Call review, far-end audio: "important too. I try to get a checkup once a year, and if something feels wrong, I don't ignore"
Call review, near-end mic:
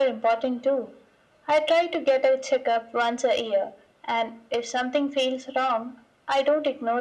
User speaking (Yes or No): No